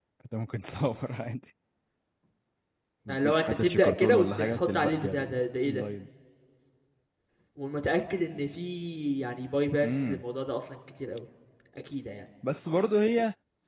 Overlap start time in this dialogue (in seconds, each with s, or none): 3.1 s